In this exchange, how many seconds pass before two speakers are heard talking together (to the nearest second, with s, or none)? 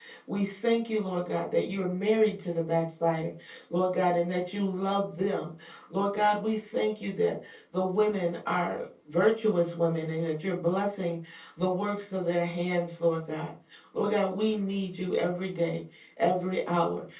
none